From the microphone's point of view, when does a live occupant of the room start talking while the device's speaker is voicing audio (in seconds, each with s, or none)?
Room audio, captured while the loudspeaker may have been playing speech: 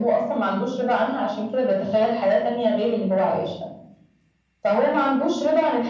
none